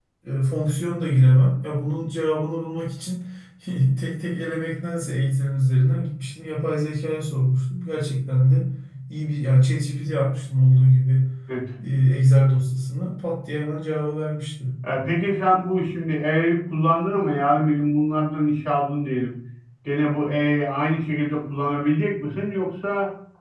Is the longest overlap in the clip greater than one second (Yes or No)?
No